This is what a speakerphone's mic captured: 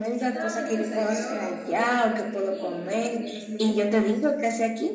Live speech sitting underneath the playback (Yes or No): Yes